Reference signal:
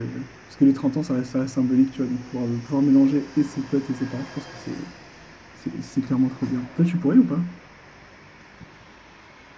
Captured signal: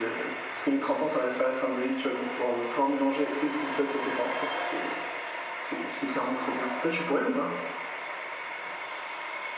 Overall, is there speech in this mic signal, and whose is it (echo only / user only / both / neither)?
echo only